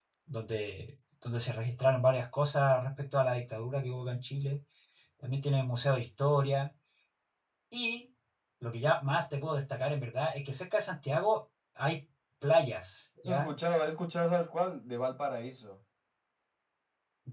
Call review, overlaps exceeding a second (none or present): none